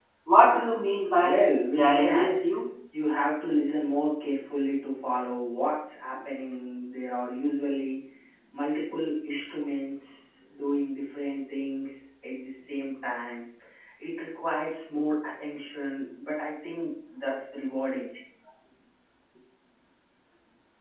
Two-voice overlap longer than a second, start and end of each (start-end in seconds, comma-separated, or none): 1.2-2.5